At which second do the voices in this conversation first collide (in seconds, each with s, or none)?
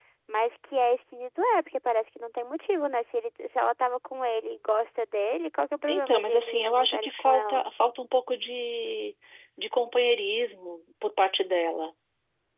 5.9 s